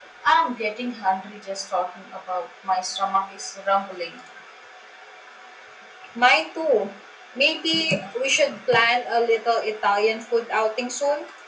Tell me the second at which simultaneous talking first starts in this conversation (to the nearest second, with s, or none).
none